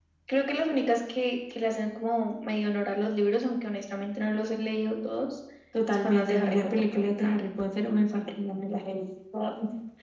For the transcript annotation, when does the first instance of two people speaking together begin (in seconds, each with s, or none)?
5.9 s